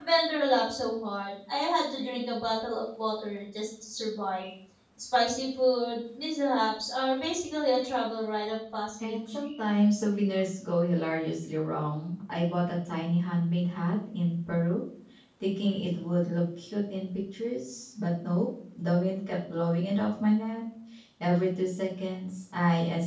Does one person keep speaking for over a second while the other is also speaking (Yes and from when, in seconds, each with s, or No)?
No